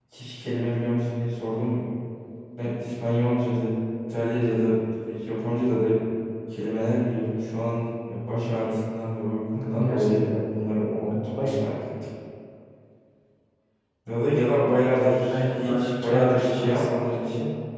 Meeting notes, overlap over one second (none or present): present